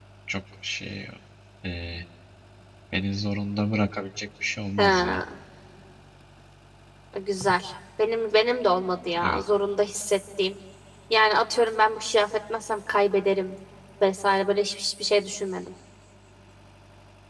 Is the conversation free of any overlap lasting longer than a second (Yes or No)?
Yes